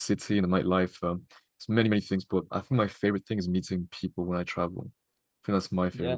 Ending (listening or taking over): listening